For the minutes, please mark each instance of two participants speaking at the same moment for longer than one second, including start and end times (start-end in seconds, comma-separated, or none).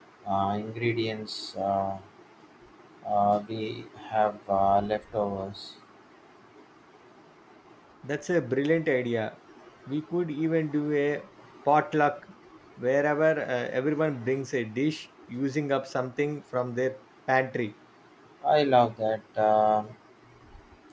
none